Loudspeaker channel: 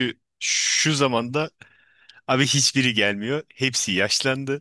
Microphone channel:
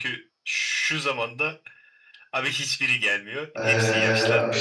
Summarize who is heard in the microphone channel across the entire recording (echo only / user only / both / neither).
both